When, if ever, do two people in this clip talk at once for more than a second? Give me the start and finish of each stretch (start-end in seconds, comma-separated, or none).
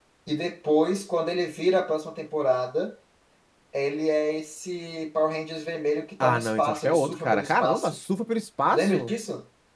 6.2-7.9